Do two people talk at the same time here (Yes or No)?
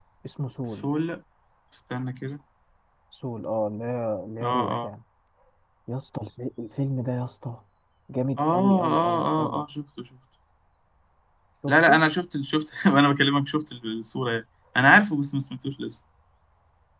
Yes